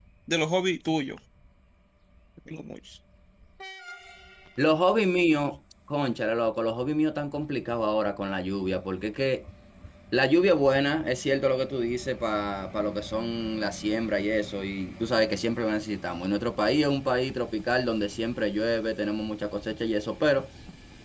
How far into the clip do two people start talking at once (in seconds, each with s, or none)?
none